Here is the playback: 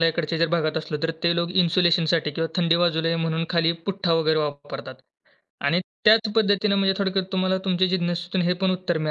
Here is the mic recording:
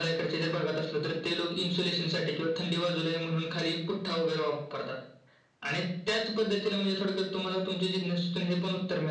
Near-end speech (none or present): none